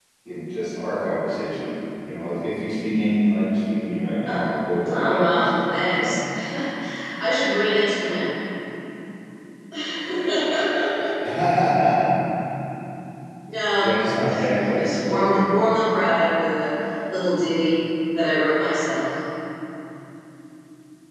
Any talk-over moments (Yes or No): Yes